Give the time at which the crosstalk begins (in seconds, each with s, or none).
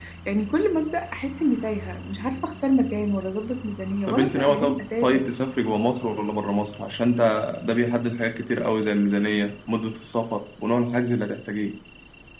4.1 s